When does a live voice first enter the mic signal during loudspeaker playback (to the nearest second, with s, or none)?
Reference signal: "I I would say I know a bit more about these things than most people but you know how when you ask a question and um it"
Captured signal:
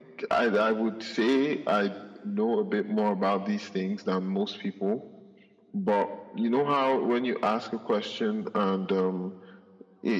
none